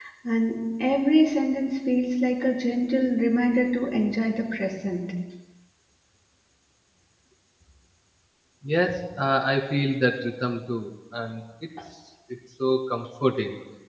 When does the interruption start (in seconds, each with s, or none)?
none